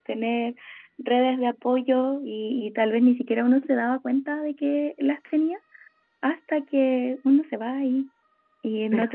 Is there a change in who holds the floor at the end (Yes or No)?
No